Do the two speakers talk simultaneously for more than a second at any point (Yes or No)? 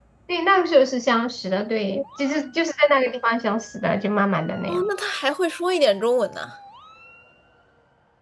No